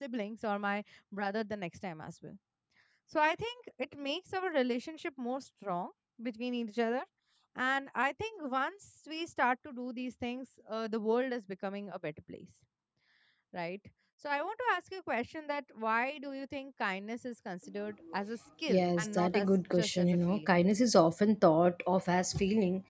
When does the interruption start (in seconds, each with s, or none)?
18.7 s